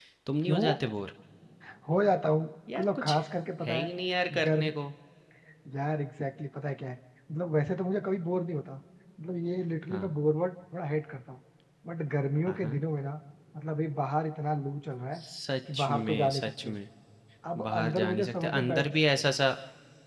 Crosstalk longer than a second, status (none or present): present